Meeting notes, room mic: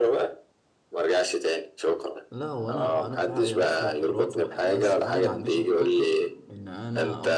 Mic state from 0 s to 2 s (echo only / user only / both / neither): echo only